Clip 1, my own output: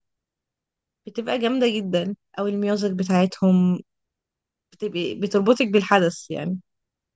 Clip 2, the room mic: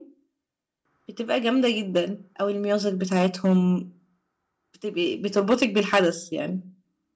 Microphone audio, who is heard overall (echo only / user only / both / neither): echo only